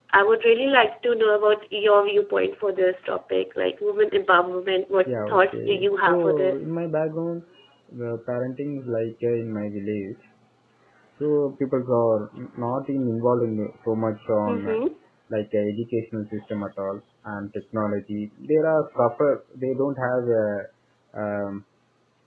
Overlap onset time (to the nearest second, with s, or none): 5 s